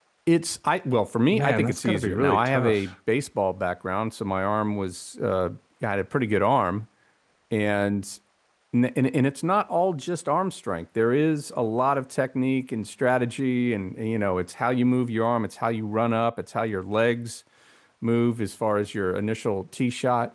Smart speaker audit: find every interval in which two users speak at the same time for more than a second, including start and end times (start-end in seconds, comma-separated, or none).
1.3-2.9